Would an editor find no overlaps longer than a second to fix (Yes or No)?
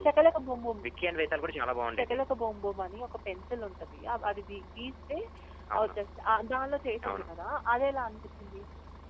Yes